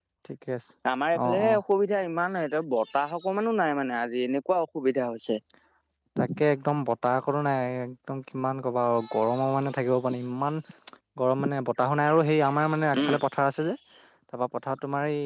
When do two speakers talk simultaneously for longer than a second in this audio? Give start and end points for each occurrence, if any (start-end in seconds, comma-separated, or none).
none